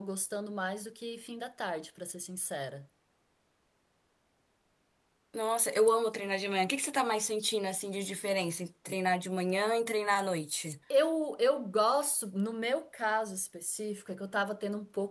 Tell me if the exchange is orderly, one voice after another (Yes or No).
Yes